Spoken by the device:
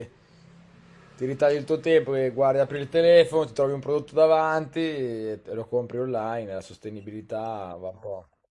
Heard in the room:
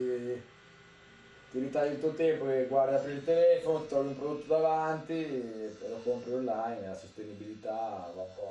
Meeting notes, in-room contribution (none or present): none